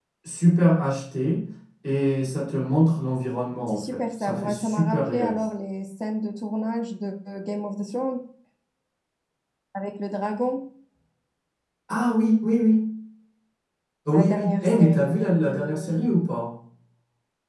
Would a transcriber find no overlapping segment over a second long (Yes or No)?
No